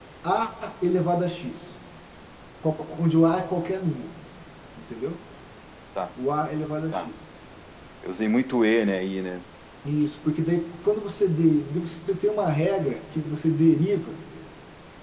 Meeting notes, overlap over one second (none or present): none